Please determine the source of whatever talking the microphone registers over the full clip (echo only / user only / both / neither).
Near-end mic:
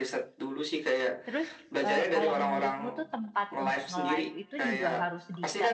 both